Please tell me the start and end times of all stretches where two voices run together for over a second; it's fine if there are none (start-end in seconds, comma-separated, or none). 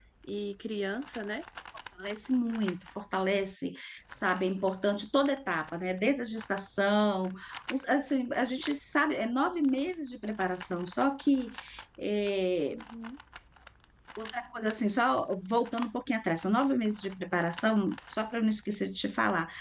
none